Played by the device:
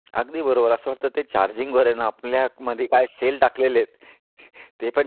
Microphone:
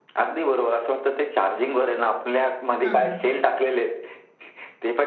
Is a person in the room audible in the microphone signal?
Yes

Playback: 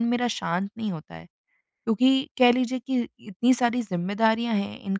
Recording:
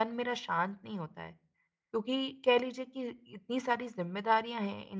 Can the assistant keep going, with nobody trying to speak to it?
Yes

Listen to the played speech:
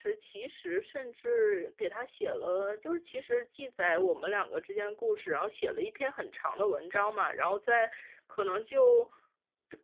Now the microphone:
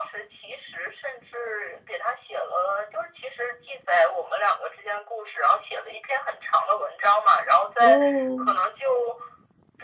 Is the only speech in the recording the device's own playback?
No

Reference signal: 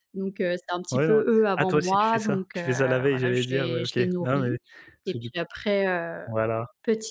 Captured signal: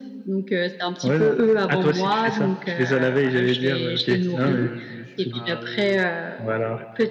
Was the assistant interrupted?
Yes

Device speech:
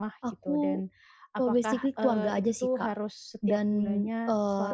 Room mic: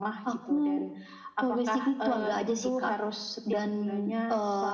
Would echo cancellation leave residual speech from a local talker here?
No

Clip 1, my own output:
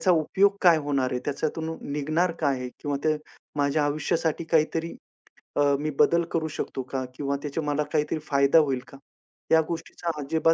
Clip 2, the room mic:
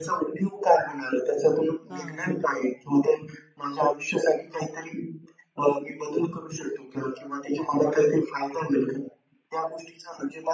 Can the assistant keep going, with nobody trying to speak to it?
No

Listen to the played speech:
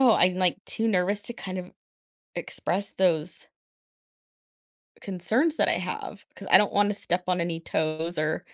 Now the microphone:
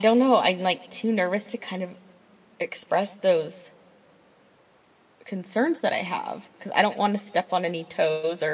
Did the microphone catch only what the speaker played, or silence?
Yes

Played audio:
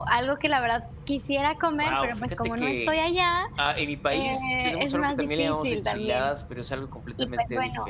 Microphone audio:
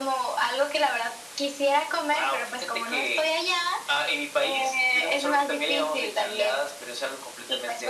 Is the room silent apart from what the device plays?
Yes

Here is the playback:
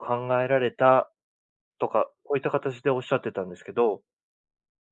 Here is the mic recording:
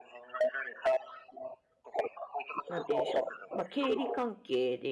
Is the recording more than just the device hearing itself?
Yes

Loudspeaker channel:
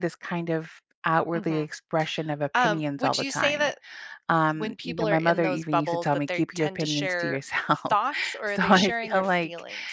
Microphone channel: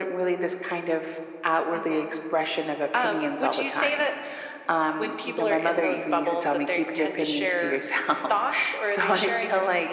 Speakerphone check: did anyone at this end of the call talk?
No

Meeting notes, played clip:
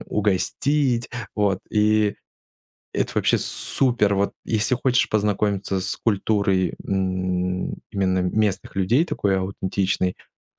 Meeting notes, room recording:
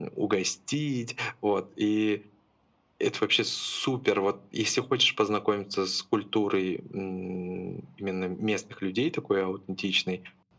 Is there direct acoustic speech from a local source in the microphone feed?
No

